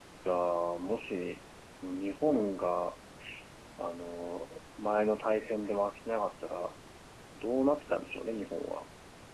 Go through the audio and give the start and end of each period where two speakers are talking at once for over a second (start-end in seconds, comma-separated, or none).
none